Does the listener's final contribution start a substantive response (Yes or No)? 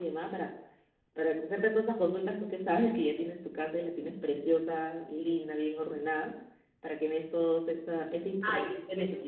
Yes